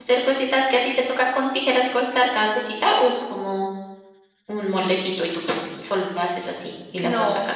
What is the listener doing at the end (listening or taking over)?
taking over